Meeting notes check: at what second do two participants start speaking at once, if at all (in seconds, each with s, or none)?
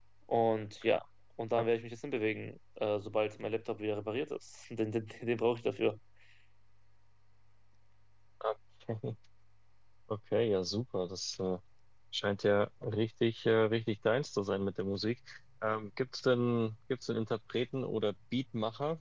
none